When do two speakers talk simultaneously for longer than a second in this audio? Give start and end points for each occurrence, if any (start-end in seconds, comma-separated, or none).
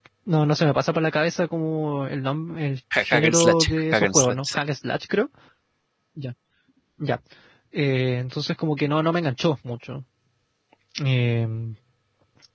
3.0-4.6